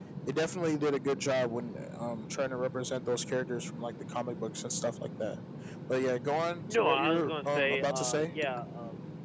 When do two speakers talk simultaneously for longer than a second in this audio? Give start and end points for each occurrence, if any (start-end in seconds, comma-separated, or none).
6.7-8.3